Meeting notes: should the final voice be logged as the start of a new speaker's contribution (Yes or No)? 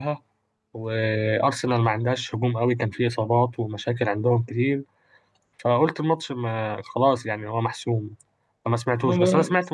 No